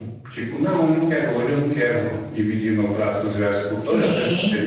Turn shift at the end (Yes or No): Yes